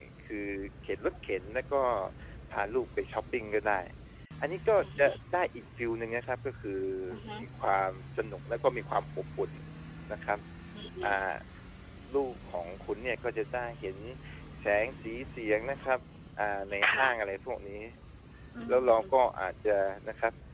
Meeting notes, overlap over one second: none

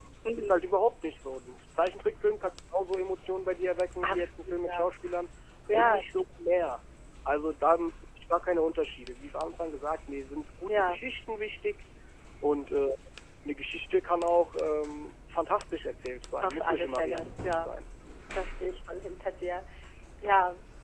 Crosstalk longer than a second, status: present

